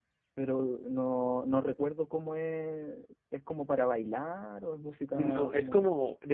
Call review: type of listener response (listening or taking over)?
taking over